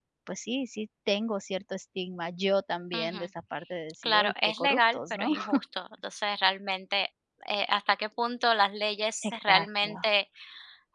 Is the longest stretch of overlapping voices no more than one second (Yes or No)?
No